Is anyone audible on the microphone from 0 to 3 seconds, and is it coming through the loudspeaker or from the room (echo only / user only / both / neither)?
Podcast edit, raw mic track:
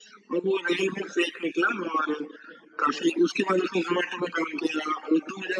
echo only